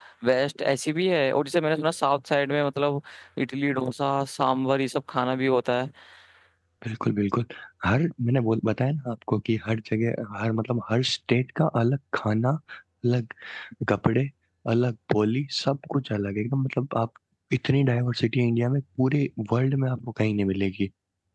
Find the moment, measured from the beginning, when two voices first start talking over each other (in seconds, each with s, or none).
none